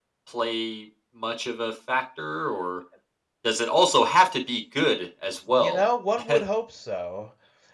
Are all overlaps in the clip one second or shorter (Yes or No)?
Yes